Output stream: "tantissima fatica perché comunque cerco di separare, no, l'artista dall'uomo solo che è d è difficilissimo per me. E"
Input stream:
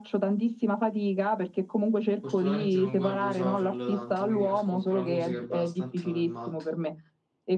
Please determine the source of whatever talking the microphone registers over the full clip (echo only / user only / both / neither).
both